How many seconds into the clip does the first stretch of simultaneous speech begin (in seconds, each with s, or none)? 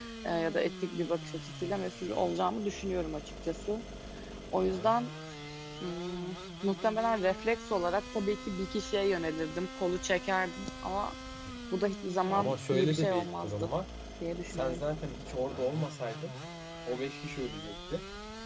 12.3 s